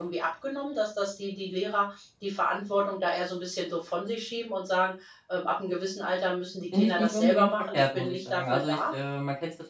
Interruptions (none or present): present